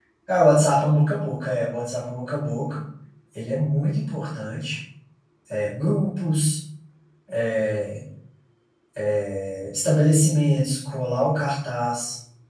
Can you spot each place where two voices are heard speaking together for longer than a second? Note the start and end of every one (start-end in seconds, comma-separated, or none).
none